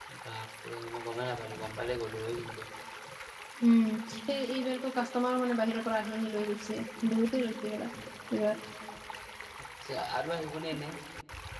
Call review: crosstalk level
none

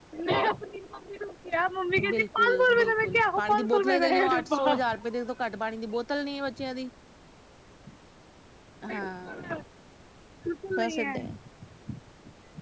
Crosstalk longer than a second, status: present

